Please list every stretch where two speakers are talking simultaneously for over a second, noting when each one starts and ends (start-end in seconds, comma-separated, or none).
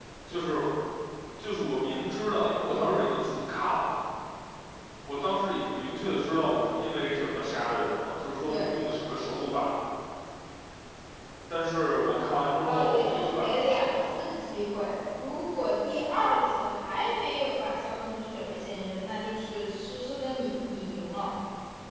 12.6-14.2